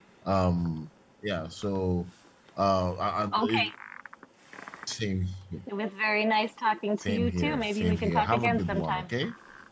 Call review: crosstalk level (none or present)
present